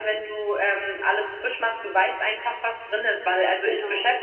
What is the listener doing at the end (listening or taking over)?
listening